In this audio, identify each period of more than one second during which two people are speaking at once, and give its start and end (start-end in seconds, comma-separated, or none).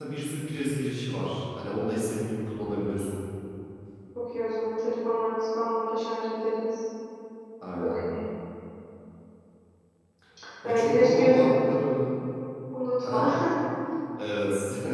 10.6-11.9